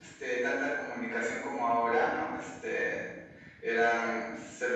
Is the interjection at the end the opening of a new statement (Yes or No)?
No